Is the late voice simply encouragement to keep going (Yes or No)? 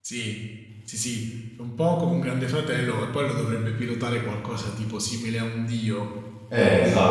No